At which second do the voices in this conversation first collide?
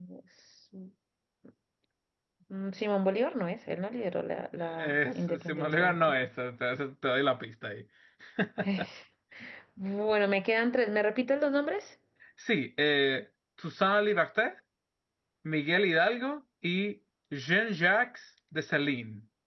4.8 s

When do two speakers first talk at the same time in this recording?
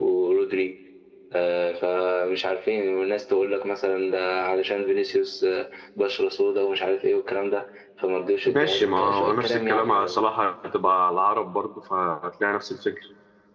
8.4 s

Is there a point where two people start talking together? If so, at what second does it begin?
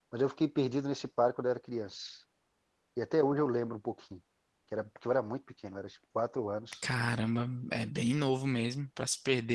none

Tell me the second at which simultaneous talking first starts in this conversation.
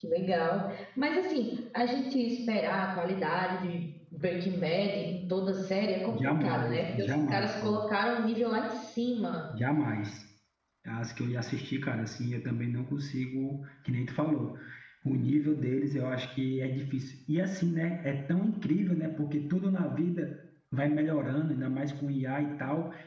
6.1 s

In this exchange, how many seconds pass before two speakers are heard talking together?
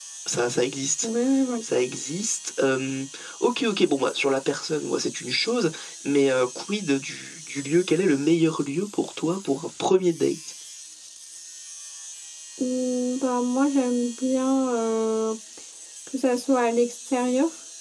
none

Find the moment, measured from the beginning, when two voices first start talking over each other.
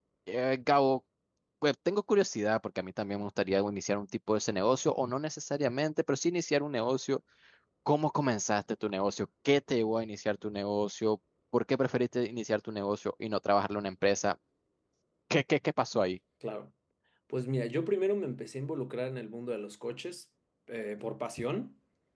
none

